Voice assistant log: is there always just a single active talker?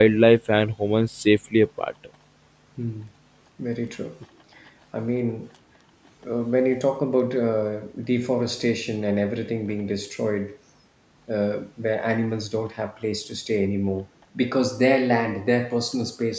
Yes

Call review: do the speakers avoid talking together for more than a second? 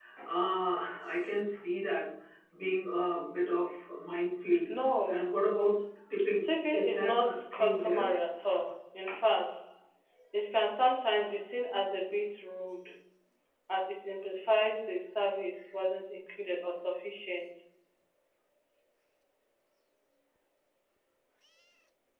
No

